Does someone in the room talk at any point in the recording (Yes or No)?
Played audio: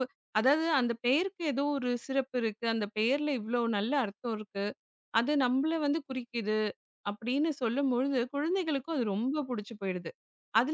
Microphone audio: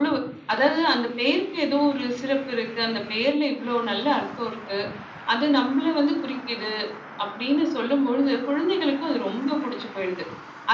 No